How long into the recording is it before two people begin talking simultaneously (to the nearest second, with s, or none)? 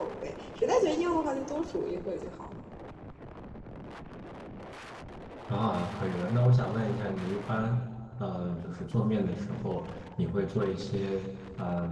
none